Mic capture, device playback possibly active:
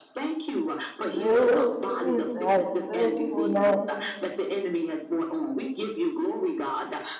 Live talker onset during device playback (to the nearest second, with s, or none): 1 s